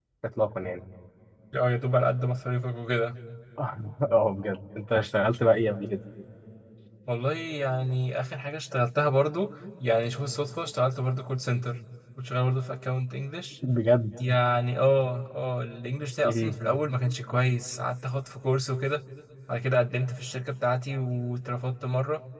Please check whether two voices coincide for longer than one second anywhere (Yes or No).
No